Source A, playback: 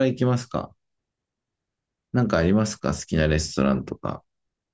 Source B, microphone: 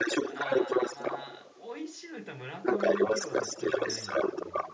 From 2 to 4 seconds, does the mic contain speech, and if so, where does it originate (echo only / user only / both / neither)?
both